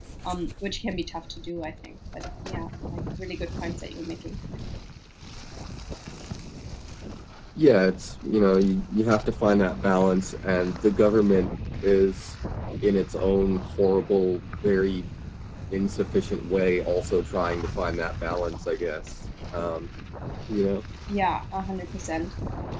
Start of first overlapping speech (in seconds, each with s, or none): none